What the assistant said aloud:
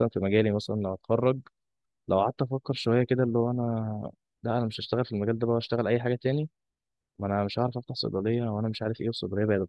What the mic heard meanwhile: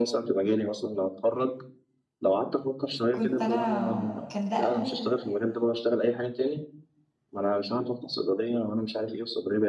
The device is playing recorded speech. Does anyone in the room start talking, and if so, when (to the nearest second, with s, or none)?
3 s